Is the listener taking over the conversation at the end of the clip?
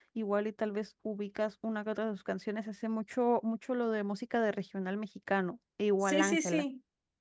Yes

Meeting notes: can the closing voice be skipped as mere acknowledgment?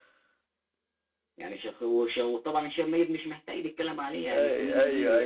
No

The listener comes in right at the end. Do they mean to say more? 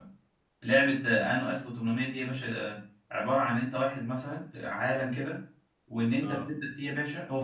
No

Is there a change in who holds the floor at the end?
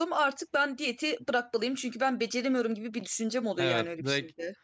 Yes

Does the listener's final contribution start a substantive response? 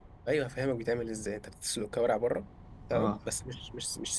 No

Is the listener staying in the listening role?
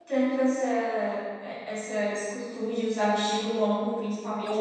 Yes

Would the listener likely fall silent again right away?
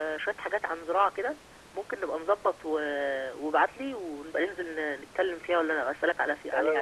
No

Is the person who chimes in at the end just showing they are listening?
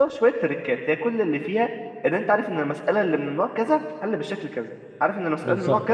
Yes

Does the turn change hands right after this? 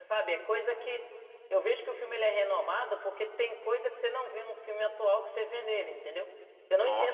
No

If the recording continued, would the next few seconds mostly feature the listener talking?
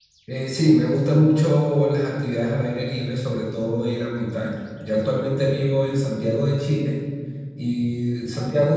No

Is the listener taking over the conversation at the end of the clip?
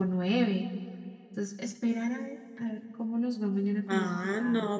Yes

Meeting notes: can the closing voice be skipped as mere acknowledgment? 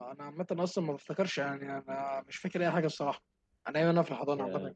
Yes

